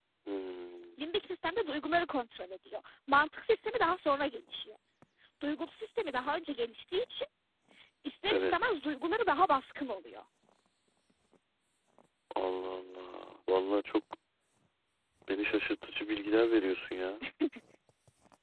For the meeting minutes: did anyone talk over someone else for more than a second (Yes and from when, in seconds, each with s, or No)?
No